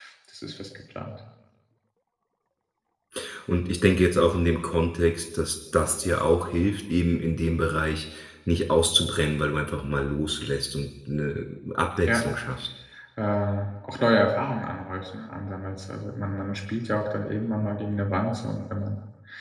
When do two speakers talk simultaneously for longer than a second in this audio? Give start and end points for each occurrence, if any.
none

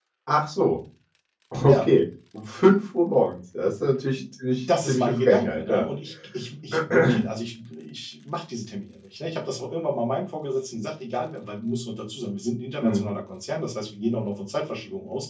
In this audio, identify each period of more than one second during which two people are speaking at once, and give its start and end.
4.5-5.8

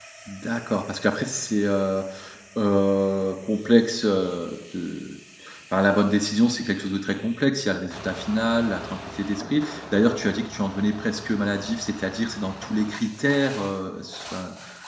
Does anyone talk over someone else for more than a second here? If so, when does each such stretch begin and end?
none

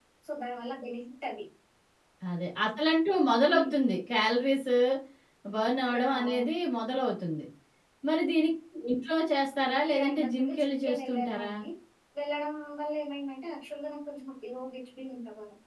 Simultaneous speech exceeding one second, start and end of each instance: 10.0-11.5

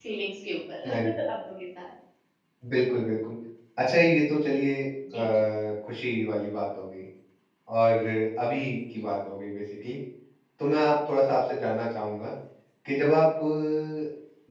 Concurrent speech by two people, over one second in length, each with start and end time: none

